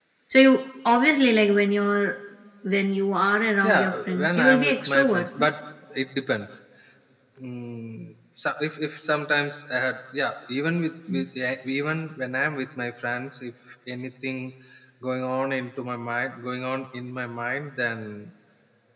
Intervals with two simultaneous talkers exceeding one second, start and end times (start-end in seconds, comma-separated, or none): 3.6-5.5